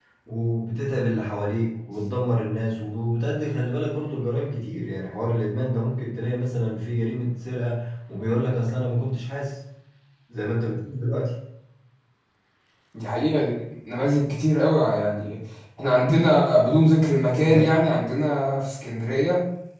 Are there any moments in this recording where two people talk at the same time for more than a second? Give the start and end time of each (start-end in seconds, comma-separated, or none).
none